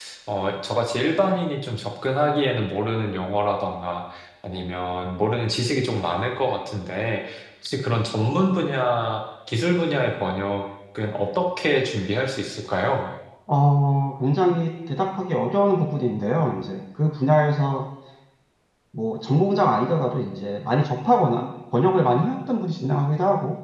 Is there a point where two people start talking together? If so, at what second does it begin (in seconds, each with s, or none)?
none